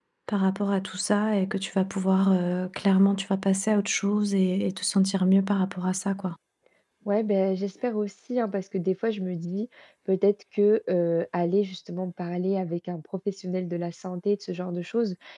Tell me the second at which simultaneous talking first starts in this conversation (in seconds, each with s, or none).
none